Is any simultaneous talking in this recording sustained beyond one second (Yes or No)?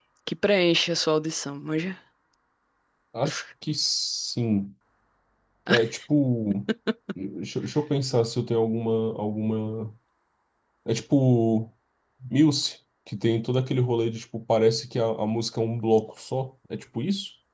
No